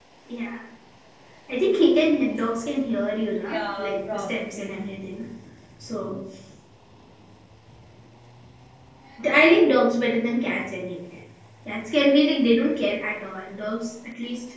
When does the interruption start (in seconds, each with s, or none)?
3.4 s